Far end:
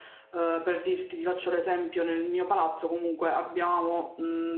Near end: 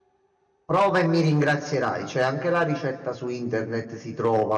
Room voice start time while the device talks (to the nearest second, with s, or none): 1 s